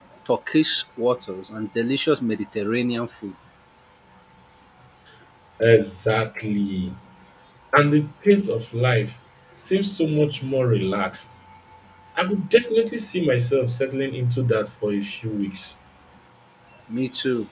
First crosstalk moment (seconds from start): none

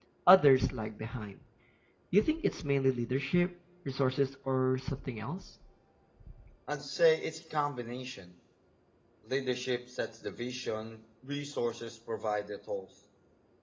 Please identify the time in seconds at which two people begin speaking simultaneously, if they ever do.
none

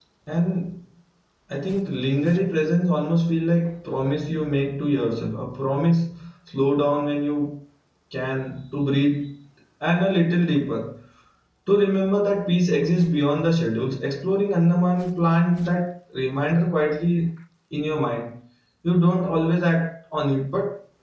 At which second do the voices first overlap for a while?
none

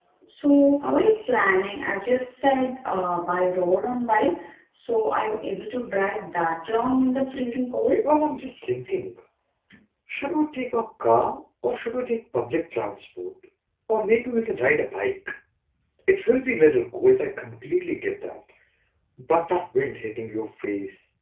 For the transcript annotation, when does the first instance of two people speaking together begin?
none

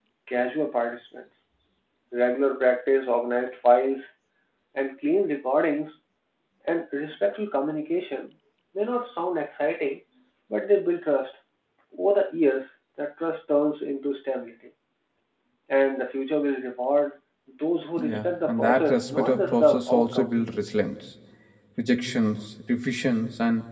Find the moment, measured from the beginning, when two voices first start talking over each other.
18.0 s

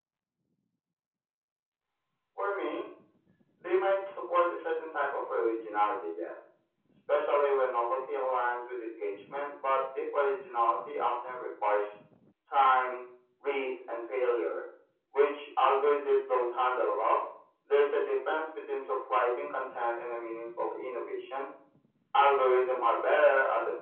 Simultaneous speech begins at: none

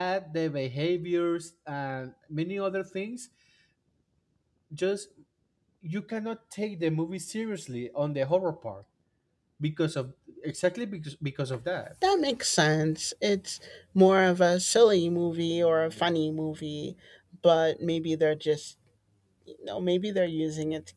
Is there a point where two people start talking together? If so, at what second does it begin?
none

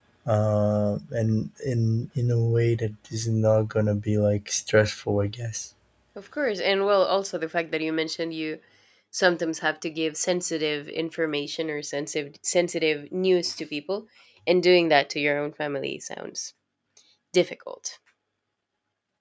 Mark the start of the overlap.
none

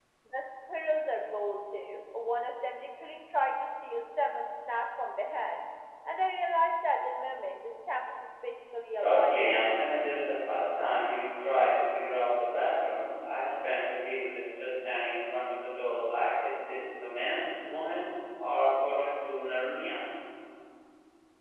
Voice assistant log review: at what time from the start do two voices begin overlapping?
9.0 s

